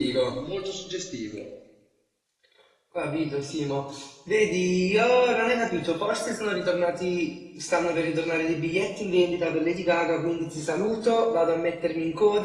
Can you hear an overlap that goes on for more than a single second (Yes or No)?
No